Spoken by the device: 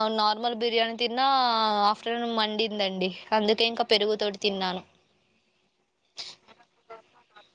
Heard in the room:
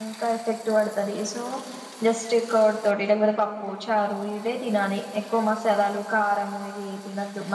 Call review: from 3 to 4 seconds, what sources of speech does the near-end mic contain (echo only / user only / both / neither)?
user only